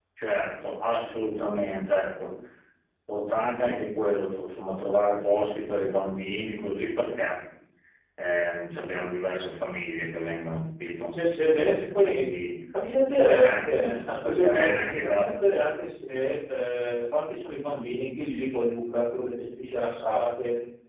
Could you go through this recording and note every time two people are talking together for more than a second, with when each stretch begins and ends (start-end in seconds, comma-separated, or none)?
13.2-15.2